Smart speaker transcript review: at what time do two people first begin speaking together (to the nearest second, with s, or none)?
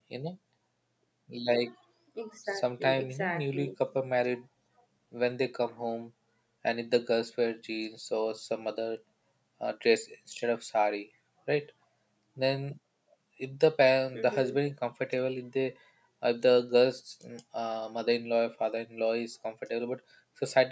3 s